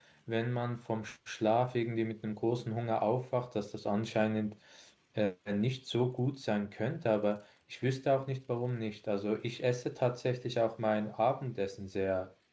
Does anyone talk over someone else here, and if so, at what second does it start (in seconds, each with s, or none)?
none